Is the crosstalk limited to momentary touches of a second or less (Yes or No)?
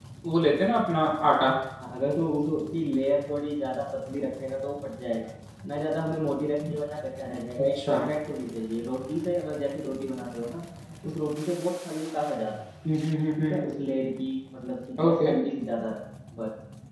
Yes